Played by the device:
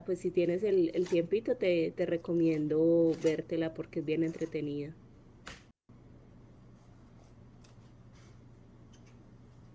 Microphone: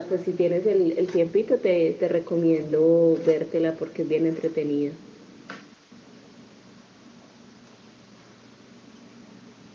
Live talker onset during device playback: none

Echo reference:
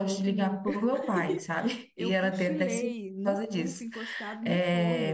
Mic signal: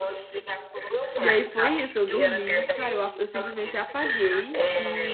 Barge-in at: 1.1 s

